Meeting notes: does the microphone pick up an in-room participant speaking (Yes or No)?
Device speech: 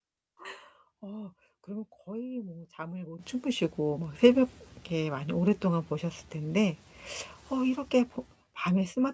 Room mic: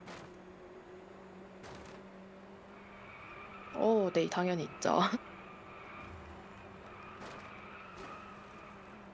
Yes